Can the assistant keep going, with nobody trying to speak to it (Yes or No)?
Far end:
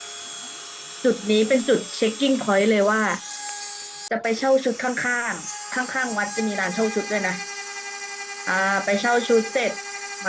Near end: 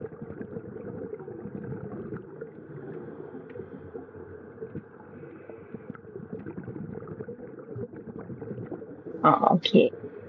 No